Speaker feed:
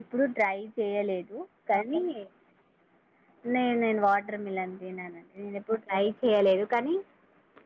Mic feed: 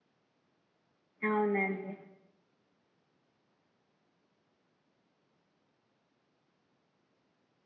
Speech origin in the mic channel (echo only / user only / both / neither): user only